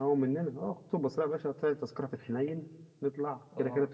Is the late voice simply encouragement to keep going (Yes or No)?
Yes